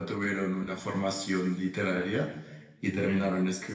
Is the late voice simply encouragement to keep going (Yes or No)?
Yes